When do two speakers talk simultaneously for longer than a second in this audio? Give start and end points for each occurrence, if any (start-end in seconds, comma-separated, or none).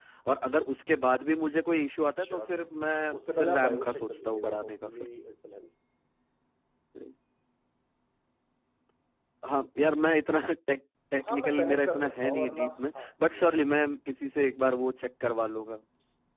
3.1-4.9, 11.3-13.6